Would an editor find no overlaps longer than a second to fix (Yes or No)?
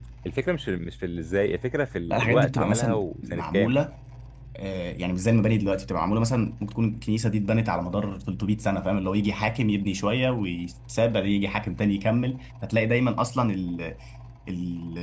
No